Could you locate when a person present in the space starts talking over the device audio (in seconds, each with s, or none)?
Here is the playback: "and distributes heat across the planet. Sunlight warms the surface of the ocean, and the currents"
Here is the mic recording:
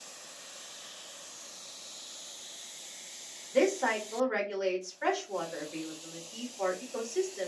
3.5 s